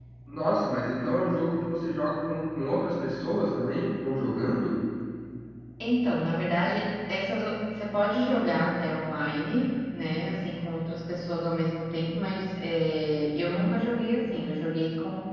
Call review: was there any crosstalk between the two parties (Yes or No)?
No